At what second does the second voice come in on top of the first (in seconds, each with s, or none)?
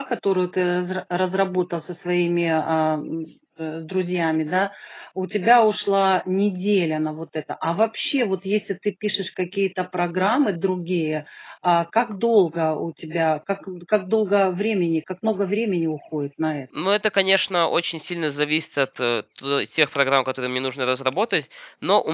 none